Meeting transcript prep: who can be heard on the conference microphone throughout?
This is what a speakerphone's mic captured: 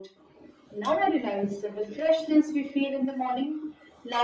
echo only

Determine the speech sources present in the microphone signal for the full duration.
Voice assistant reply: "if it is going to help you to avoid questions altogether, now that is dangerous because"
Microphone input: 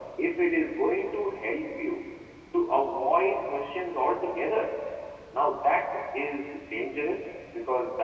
echo only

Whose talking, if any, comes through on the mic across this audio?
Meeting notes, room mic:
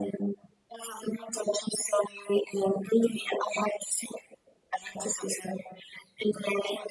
echo only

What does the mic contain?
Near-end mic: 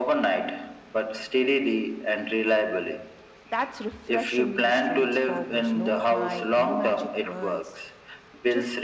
both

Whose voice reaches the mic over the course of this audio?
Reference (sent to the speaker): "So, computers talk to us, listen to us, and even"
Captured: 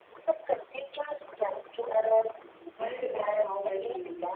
both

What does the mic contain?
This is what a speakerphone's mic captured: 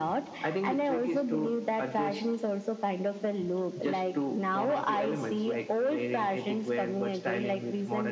echo only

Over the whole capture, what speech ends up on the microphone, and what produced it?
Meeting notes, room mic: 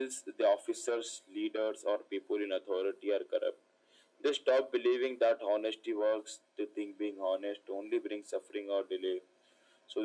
echo only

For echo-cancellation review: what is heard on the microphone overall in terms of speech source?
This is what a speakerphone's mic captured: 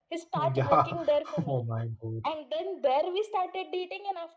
both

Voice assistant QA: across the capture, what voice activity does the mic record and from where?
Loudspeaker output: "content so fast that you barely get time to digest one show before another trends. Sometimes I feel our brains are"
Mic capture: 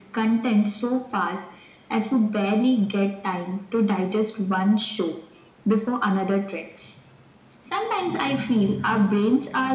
echo only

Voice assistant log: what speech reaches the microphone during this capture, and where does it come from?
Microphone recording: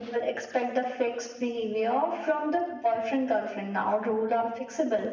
echo only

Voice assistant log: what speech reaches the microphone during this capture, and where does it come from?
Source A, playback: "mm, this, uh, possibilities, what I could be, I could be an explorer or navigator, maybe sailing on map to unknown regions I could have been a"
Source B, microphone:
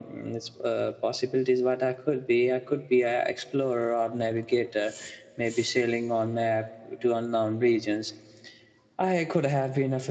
echo only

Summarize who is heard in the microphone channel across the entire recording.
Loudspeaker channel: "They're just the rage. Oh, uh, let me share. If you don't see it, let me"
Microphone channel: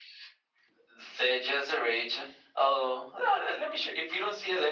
echo only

